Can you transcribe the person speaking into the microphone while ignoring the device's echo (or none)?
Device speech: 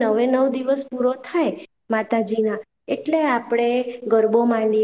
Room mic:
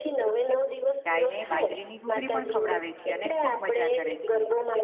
ગાયને બાજરીની ઘૂગરી પણ ખવડાવે છે અને ખૂબ મજા કરે છે.